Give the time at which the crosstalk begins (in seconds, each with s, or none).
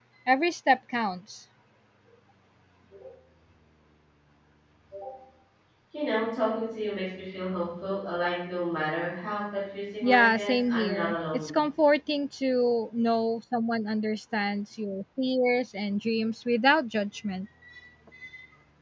10.0 s